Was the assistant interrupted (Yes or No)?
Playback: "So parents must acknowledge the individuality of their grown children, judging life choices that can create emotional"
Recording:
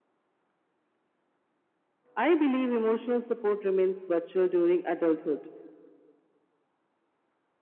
Yes